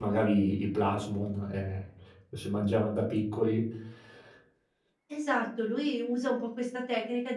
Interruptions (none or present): none